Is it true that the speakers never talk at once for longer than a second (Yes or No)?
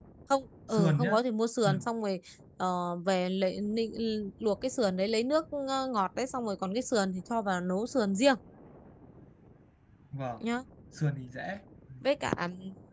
Yes